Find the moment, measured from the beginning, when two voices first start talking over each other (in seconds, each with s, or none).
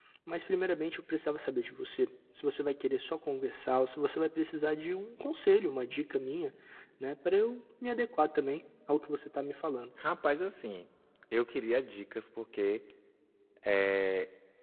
none